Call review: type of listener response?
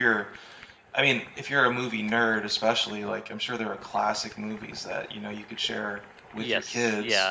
taking over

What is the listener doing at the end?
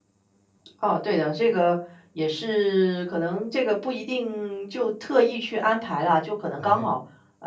listening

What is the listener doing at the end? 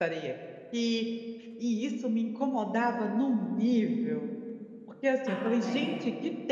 listening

